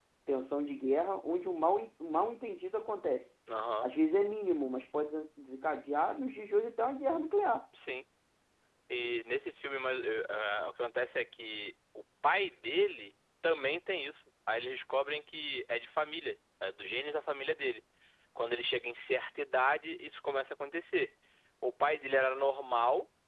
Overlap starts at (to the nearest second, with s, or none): none